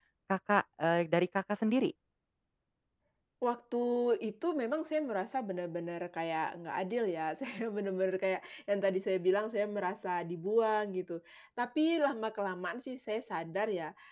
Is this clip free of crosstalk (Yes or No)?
Yes